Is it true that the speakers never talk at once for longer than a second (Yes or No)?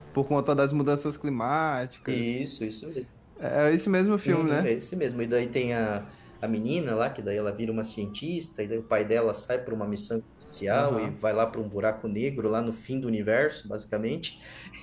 Yes